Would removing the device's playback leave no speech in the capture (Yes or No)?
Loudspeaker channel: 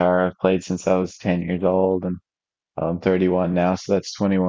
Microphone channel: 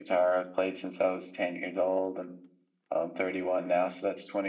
Yes